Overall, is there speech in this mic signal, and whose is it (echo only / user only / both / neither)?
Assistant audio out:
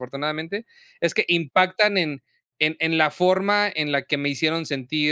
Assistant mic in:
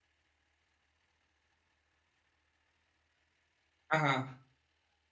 user only